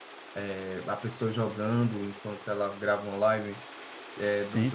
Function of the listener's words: listening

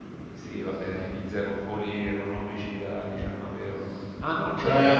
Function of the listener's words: listening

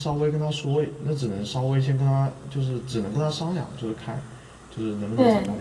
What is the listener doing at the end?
listening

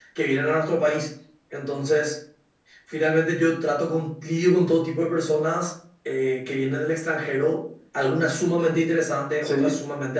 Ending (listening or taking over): listening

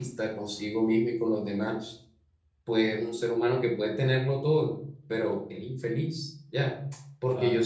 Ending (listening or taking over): listening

